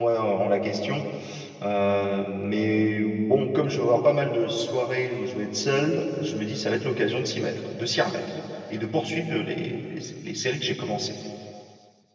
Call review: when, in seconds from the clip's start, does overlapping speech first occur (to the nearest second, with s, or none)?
none